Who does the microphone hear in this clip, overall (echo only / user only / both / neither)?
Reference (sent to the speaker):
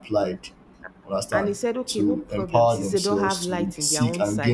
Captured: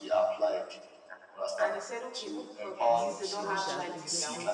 both